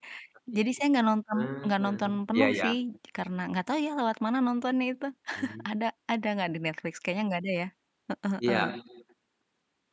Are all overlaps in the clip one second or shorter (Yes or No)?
No